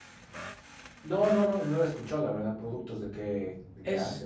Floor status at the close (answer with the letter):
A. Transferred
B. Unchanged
A